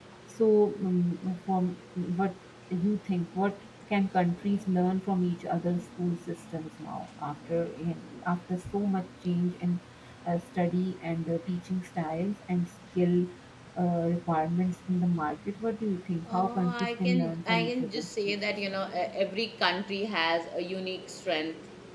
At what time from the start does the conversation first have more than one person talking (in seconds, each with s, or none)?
16.3 s